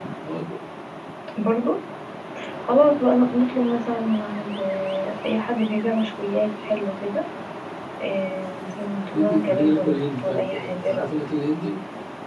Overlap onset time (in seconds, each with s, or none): 9.1 s